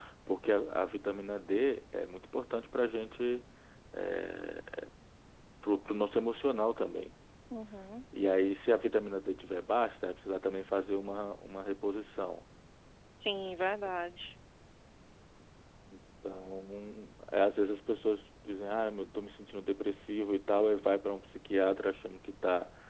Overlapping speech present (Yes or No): No